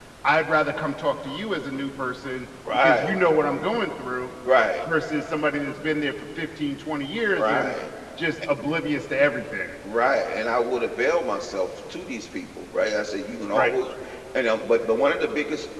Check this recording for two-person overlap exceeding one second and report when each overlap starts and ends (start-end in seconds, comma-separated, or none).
none